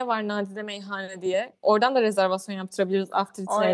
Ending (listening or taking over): taking over